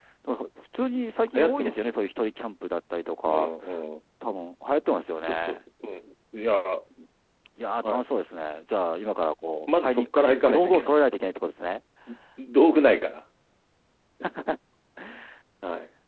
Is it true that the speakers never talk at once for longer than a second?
No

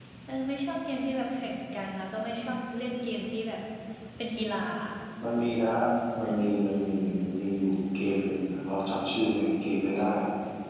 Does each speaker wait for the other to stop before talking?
Yes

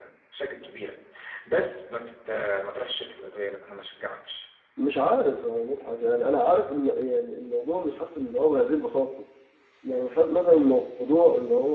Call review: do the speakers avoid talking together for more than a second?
Yes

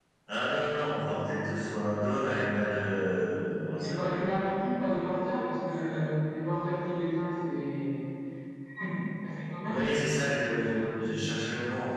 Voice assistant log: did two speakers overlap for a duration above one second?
No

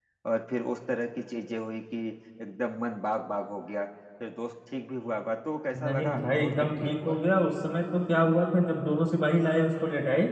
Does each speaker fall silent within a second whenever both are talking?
No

